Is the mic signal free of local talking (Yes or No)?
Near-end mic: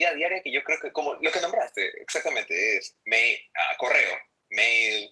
Yes